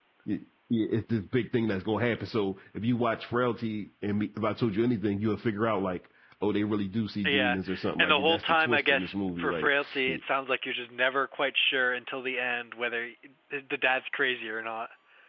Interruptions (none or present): present